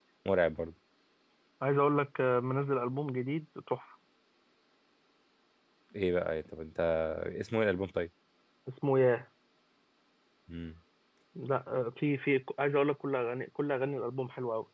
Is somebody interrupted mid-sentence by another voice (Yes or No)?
No